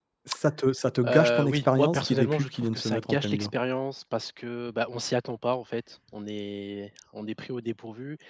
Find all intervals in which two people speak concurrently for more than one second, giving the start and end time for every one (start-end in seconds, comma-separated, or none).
1.1-3.5